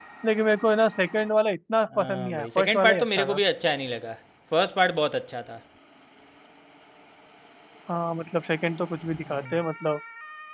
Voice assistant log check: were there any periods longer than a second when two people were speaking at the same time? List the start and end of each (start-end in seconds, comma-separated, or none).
2.0-3.4